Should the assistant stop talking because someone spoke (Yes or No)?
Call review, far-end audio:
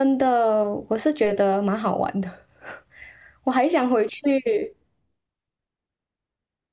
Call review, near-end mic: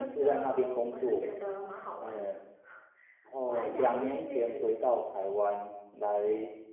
Yes